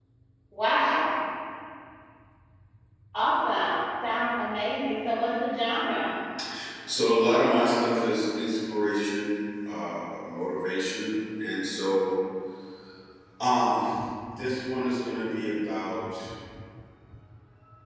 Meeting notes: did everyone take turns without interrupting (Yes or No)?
Yes